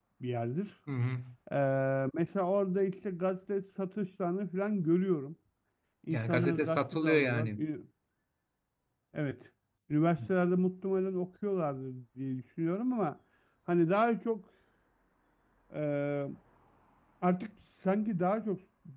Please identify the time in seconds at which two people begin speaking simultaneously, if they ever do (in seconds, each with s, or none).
6.1 s